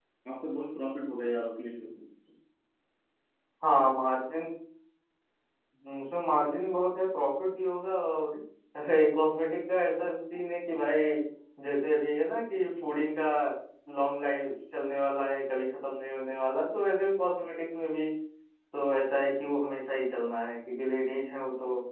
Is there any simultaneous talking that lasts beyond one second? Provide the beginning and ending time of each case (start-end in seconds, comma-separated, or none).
none